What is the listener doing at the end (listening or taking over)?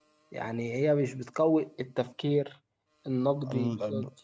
taking over